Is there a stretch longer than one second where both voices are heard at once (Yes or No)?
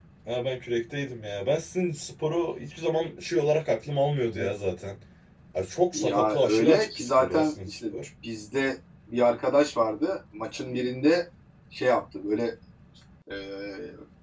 Yes